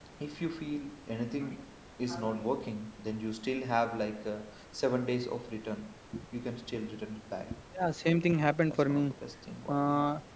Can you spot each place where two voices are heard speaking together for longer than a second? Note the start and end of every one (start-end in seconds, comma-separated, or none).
none